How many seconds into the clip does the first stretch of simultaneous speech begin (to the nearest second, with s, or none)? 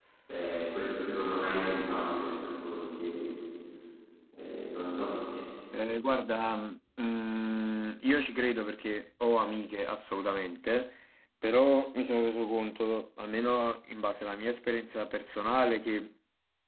none